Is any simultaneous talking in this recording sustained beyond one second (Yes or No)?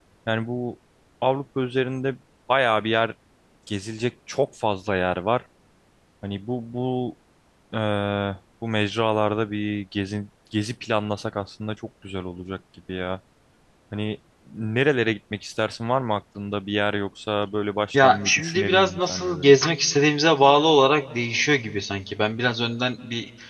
Yes